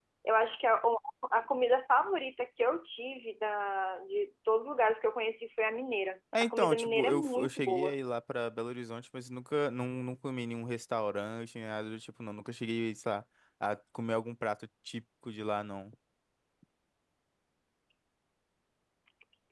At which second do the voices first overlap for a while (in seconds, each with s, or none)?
6.3 s